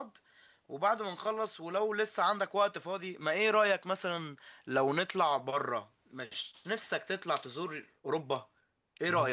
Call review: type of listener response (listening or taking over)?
taking over